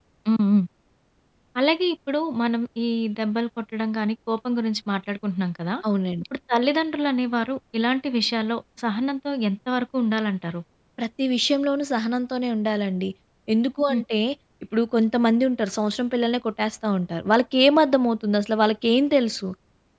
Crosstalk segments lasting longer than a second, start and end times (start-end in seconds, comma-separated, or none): none